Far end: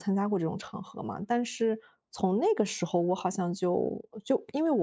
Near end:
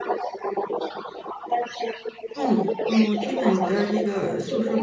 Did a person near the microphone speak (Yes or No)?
Yes